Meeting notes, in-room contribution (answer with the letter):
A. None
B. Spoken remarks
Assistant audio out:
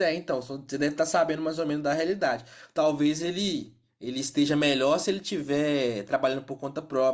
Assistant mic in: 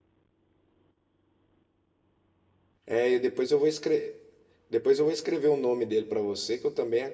B